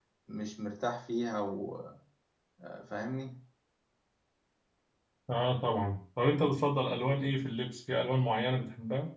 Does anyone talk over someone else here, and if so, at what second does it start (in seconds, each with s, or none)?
none